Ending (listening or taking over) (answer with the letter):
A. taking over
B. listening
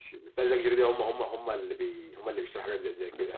A